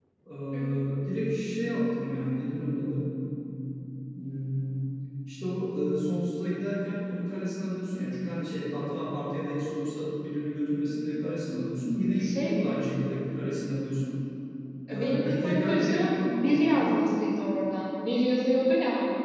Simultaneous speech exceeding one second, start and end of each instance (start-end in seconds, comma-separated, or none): 14.9-16.5